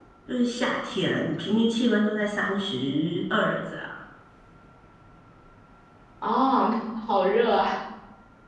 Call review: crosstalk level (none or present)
none